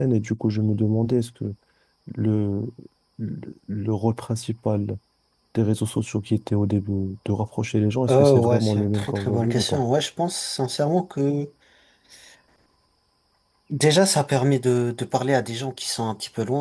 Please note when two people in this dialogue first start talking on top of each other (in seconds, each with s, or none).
8.1 s